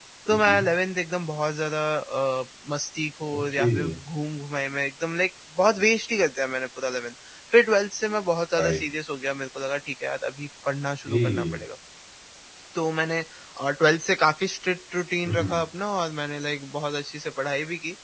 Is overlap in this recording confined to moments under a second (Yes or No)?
Yes